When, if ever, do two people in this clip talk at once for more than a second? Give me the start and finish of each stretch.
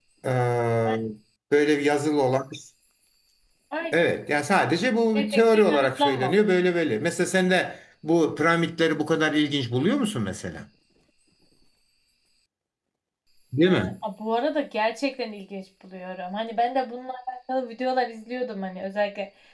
5.2-6.5

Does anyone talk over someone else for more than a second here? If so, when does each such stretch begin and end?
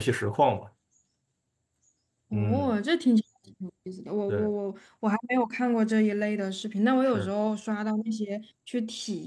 none

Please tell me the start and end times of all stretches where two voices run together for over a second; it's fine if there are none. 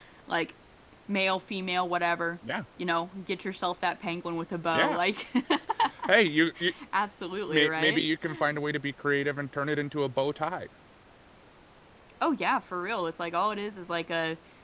none

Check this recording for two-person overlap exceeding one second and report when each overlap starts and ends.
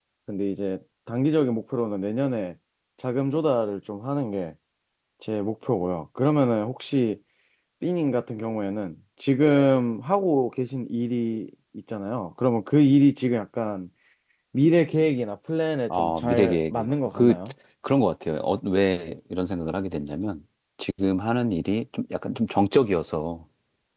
16.0-17.4

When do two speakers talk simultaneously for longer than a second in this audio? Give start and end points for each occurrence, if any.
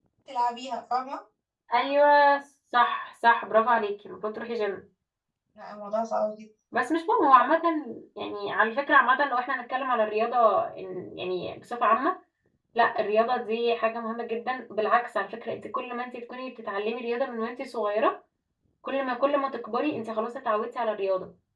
none

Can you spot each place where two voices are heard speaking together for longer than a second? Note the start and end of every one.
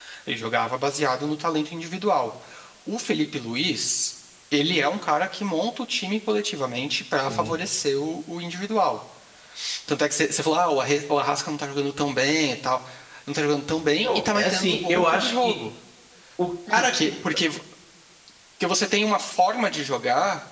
14.0-15.5

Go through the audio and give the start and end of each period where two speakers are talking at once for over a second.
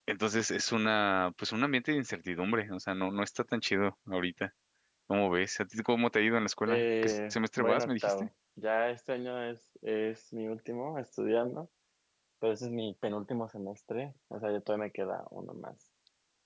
6.7-8.3

